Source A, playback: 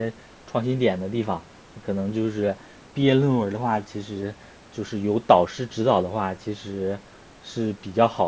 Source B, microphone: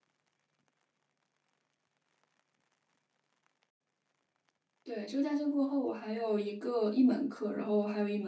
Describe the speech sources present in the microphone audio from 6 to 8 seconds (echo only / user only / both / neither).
user only